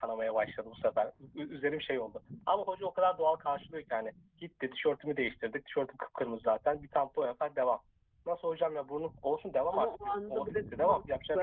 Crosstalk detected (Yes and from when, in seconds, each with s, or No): Yes, from 9.7 s